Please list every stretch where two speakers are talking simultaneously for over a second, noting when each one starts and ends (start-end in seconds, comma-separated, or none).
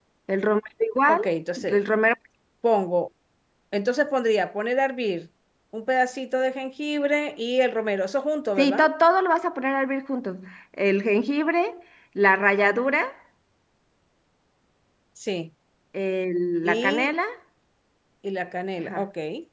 none